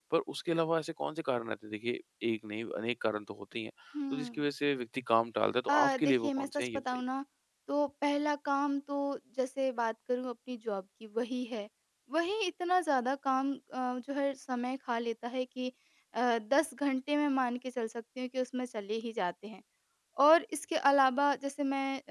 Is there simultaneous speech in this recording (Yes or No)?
Yes